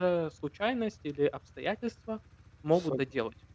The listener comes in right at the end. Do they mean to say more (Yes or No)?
Yes